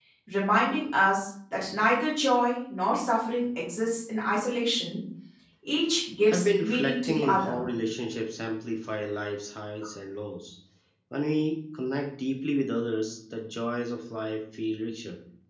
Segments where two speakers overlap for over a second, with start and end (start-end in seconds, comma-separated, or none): 6.3-7.7